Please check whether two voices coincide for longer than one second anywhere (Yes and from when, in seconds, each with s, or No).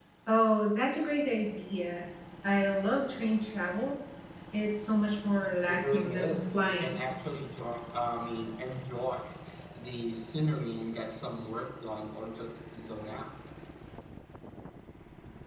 Yes, from 5.7 s